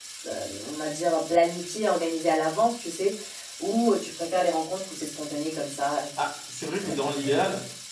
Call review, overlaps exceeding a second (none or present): none